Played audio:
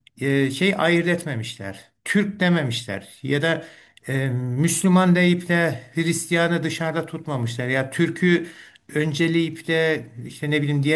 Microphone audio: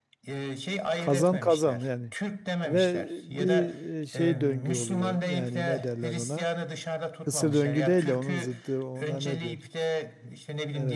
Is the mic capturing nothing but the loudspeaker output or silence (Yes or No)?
No